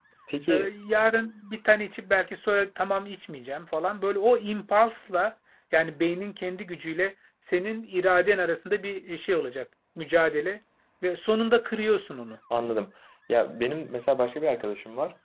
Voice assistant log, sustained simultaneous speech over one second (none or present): none